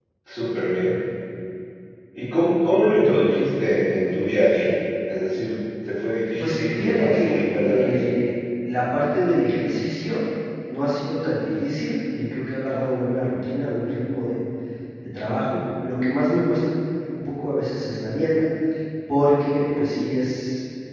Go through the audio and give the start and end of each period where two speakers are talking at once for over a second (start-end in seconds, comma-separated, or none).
6.4-7.9